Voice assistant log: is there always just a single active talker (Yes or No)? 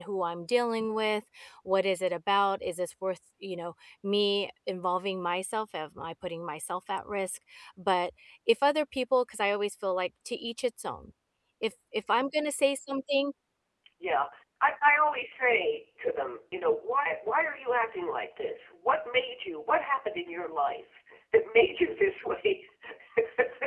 Yes